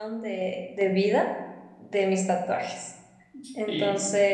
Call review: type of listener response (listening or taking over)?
listening